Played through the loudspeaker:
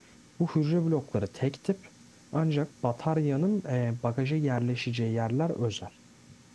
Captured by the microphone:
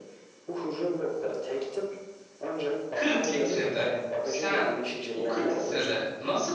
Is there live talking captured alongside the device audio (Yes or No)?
Yes